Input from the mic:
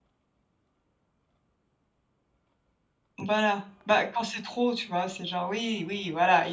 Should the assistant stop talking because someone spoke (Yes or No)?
Yes